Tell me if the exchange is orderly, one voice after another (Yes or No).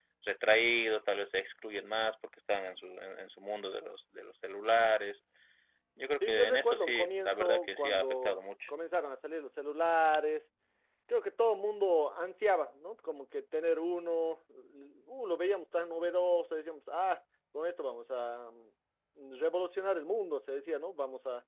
No